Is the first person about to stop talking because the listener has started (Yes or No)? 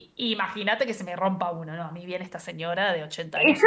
Yes